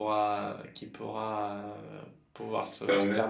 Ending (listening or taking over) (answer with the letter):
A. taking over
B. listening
B